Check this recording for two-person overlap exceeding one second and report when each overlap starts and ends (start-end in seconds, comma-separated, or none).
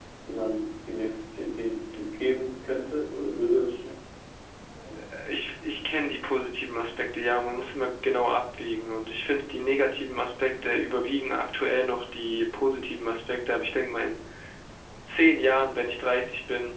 none